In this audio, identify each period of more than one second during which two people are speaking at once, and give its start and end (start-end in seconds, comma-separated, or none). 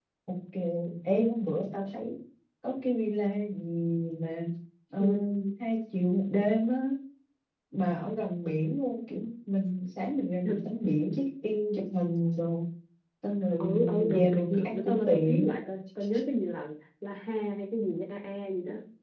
13.6-15.5